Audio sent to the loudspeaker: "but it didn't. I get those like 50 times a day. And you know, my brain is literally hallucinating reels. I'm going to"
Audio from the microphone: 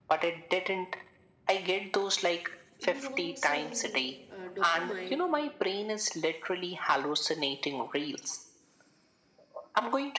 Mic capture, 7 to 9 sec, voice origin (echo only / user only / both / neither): echo only